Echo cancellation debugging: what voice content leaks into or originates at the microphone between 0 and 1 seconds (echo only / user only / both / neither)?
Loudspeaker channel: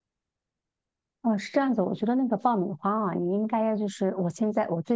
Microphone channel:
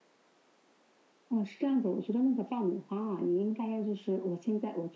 neither